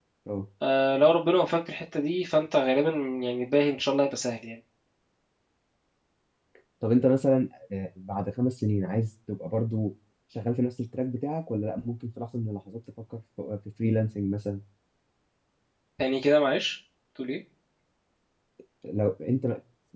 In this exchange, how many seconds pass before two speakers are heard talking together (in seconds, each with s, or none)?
none